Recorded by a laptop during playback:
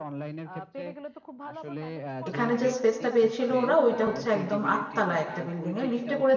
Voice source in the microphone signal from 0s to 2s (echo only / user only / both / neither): echo only